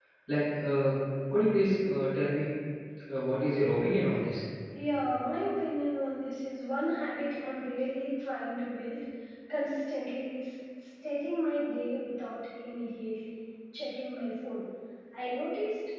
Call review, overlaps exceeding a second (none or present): none